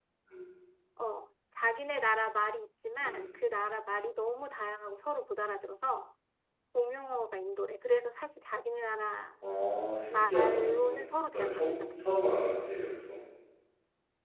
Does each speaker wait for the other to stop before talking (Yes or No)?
No